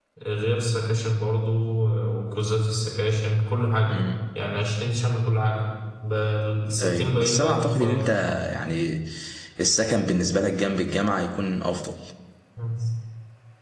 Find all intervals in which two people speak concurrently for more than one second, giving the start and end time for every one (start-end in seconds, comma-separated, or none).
6.8-8.1